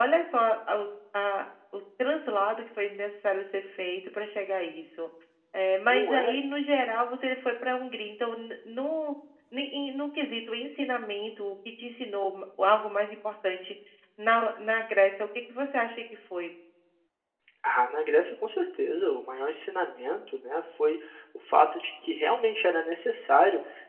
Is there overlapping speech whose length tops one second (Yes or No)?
No